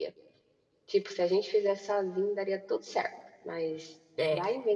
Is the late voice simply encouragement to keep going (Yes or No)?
No